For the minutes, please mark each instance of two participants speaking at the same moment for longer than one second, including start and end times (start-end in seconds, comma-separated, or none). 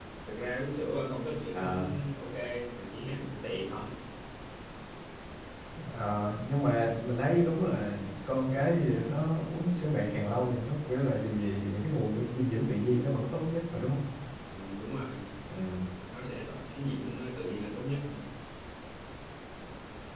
none